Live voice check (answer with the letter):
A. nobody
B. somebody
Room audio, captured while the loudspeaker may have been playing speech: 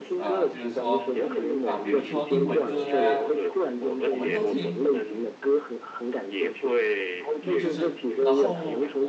B